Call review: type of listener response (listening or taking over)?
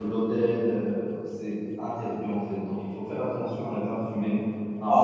taking over